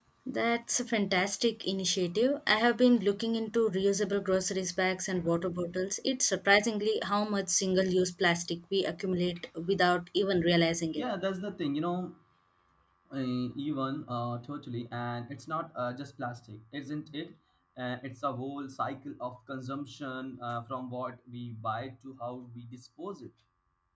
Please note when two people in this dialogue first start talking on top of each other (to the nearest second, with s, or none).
none